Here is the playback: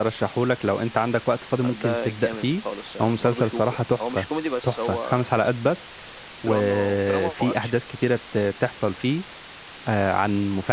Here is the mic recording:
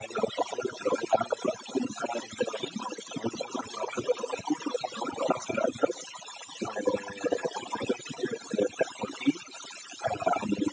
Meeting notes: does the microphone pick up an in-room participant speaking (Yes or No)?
No